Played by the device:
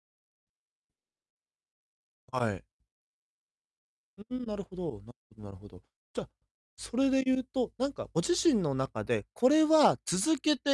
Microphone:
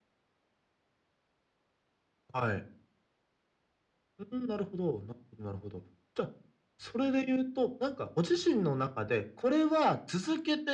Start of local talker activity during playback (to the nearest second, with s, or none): none